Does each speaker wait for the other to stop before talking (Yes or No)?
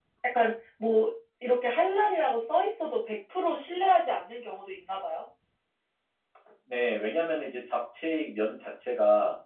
Yes